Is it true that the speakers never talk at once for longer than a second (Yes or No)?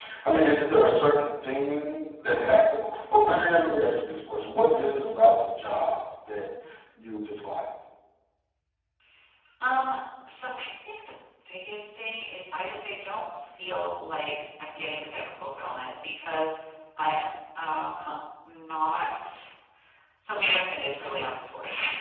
Yes